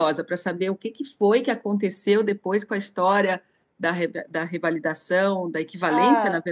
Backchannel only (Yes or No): Yes